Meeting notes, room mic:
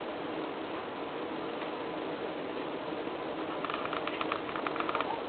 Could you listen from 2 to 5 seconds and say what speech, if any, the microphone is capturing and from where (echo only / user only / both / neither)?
neither